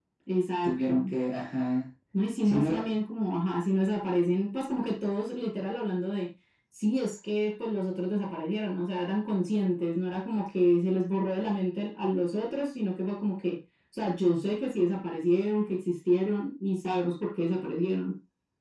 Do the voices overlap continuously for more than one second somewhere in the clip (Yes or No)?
No